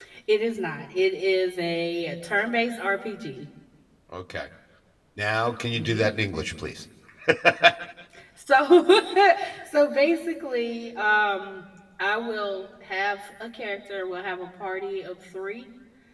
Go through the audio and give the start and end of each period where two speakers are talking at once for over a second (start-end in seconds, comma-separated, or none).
none